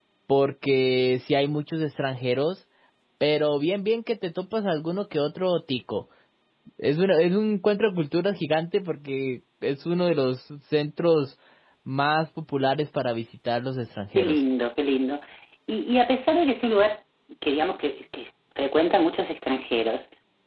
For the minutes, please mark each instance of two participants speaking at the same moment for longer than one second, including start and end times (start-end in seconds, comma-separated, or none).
none